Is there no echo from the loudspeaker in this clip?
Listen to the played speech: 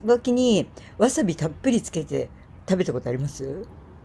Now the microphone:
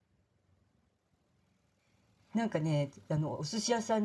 Yes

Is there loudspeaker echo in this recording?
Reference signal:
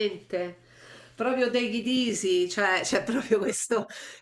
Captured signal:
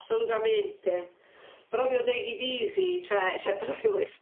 Yes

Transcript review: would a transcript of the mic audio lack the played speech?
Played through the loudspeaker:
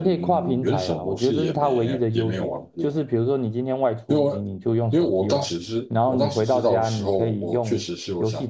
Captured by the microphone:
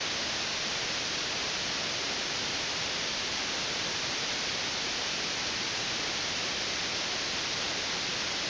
Yes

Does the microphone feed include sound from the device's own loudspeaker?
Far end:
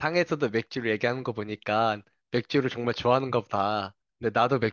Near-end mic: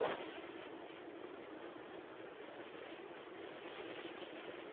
No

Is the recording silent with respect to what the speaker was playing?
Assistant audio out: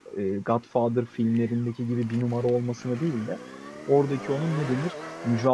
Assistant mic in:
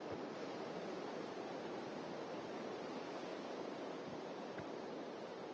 Yes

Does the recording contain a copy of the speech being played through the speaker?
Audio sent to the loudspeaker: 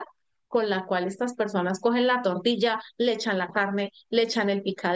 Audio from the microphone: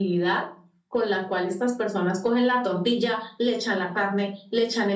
Yes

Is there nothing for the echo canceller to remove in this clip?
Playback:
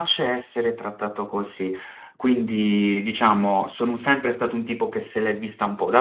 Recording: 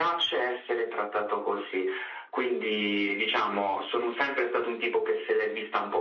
No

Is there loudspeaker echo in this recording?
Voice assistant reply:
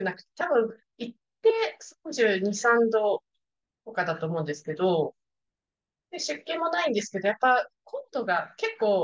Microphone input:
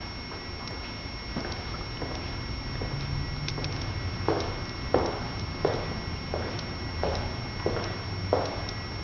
No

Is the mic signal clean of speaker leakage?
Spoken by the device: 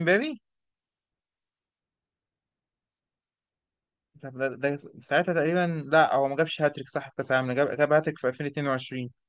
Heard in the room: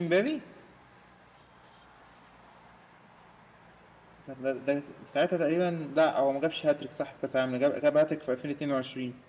No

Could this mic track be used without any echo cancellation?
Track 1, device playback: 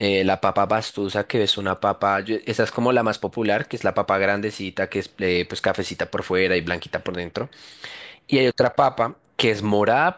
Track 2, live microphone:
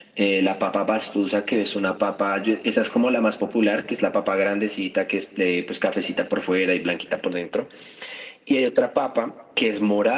No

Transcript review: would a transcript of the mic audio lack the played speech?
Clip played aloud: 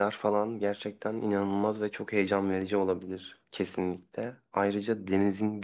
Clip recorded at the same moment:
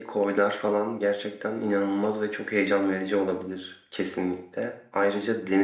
No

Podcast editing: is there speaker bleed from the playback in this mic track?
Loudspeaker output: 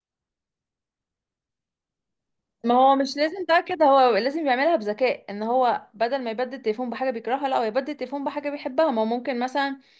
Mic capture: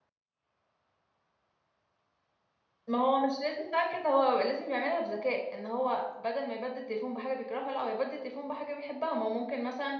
Yes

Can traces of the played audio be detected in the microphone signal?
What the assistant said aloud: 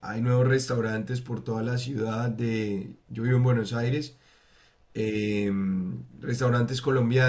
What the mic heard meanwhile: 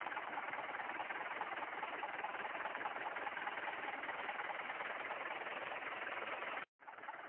No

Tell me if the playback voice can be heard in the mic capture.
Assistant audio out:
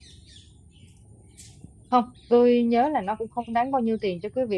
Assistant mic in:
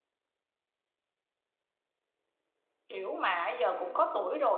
No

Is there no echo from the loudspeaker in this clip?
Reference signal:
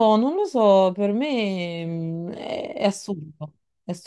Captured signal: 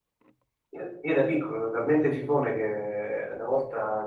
Yes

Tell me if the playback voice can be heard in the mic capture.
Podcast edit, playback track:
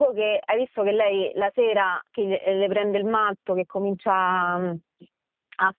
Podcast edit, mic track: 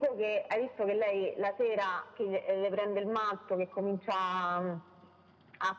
Yes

